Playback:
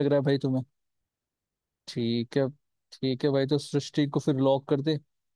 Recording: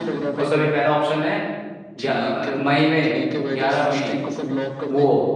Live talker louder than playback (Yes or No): Yes